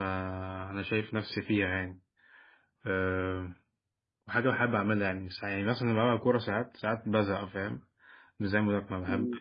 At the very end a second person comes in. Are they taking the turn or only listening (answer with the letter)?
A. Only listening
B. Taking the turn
B